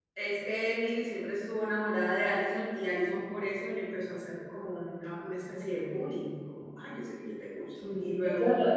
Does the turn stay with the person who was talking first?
No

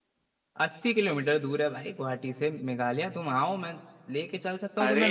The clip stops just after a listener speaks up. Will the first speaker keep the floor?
Yes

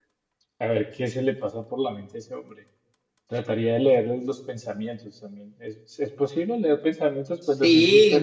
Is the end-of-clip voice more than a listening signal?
Yes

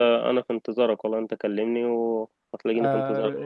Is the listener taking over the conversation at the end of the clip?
Yes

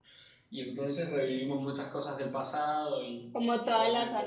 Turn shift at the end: Yes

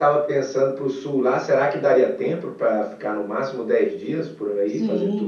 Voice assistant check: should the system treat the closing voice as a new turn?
Yes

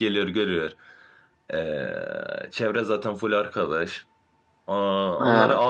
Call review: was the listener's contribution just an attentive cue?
Yes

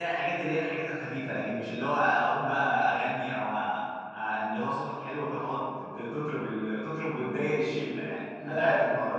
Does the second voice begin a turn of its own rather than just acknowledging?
Yes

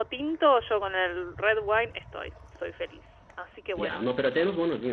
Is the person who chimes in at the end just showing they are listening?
No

